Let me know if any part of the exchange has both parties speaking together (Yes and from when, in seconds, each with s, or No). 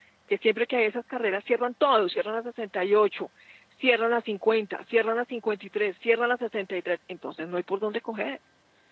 No